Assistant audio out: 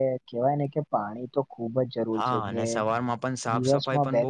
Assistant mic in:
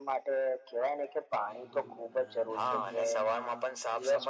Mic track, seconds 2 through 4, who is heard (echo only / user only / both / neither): both